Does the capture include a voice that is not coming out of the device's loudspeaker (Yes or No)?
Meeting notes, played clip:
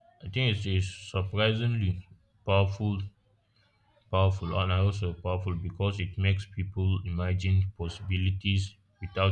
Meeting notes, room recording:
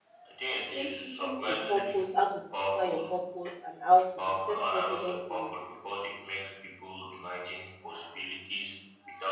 Yes